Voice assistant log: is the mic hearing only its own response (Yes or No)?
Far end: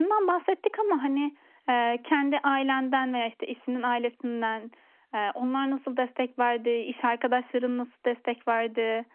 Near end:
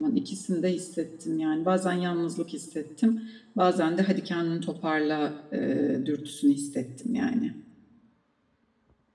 No